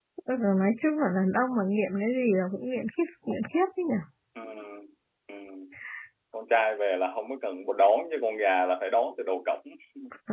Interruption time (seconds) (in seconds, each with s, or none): none